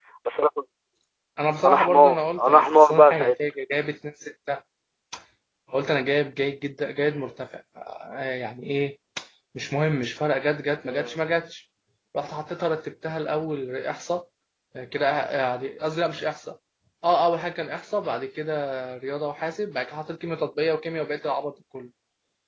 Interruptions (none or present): present